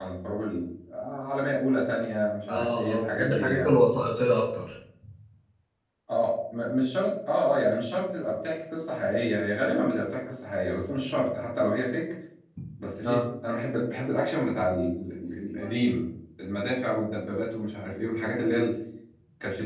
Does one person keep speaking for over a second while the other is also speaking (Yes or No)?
Yes